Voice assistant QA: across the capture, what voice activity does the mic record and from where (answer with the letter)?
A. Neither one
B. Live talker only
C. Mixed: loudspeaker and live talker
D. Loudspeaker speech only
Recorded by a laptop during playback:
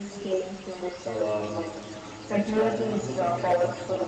C